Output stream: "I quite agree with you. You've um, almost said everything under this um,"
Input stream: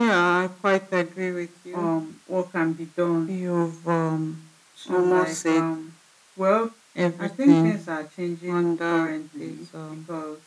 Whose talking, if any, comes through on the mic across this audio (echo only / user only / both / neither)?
both